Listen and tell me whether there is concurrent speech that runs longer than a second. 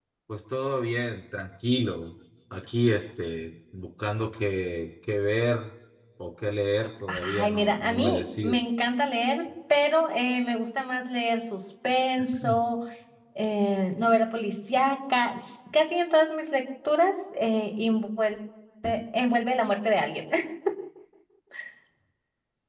Yes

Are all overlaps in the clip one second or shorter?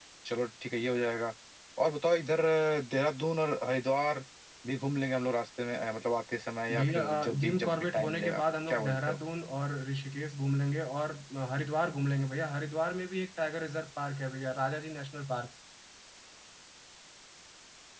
No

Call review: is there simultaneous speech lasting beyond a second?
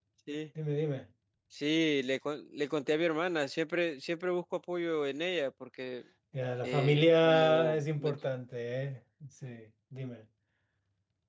Yes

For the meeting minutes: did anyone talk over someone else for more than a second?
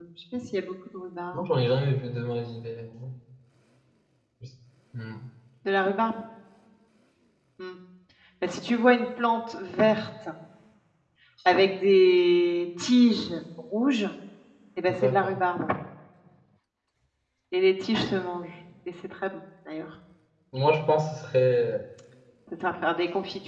No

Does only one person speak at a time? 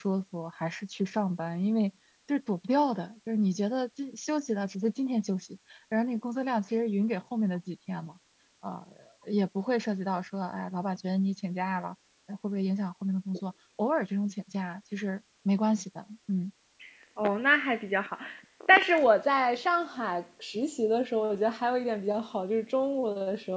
Yes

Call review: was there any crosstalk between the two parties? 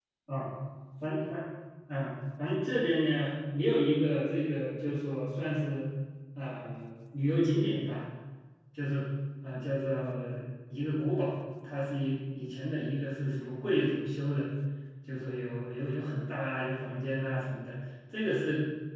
No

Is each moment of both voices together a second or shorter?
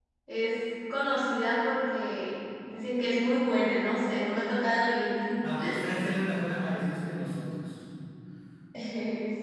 Yes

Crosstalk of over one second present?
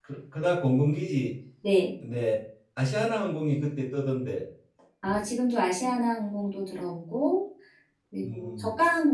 No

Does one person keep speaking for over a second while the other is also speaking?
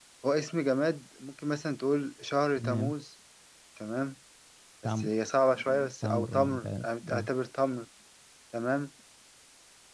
Yes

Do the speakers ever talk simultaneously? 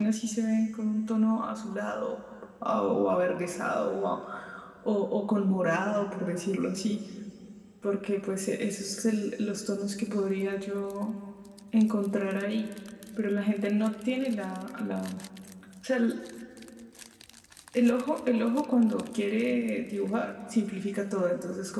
No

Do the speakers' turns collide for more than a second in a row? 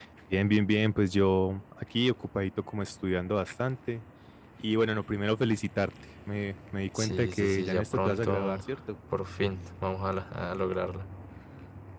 Yes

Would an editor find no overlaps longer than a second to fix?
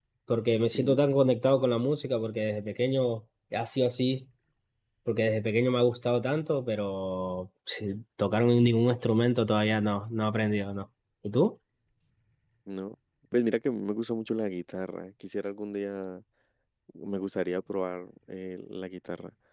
Yes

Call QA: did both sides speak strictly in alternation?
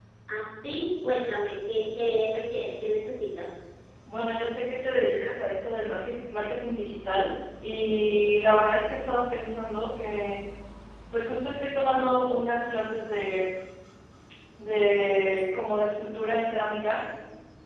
Yes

